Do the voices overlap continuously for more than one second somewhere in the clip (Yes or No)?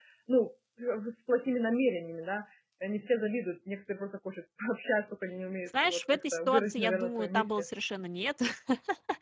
Yes